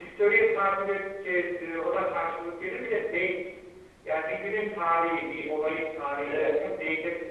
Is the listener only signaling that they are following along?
Yes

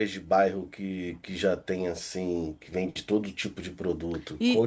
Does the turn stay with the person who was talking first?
No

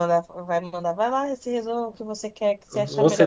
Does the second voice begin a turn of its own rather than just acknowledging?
Yes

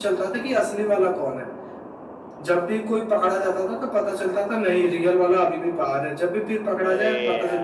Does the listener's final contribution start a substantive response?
No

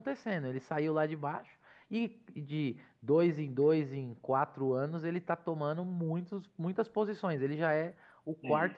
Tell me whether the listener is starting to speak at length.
No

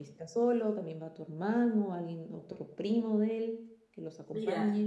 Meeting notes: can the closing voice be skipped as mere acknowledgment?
No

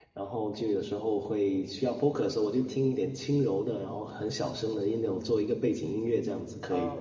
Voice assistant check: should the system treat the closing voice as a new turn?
Yes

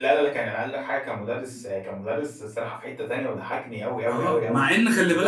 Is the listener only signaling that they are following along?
No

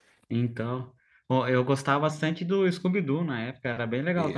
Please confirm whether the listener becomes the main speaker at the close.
Yes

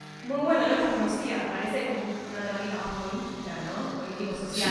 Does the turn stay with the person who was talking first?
No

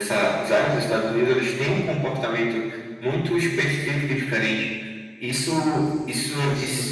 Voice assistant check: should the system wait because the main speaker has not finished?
Yes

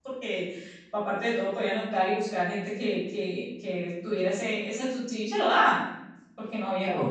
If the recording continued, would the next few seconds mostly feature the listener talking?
Yes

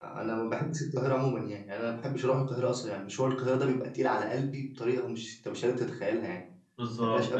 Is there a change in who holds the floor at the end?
Yes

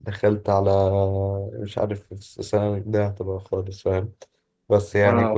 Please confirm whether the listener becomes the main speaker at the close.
No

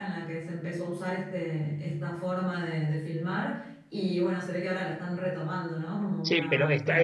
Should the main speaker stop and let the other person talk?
Yes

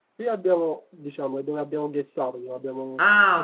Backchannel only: No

